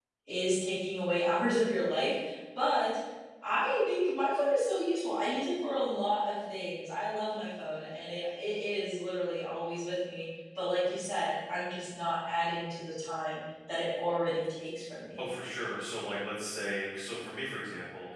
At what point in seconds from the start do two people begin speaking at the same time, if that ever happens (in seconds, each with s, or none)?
none